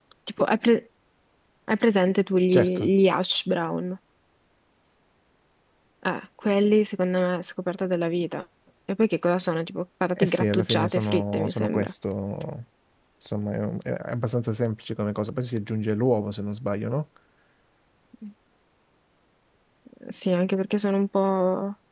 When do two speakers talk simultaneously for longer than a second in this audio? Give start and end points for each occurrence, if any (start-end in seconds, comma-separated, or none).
10.2-11.9